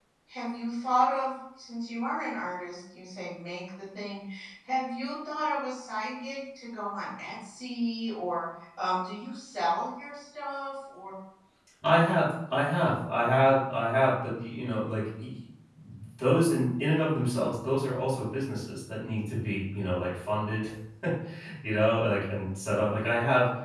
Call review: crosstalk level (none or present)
none